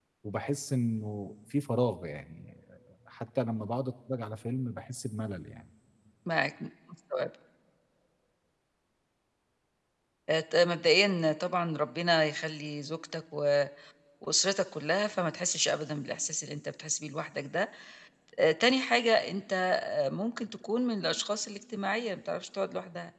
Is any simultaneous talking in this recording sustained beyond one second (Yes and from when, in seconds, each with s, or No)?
No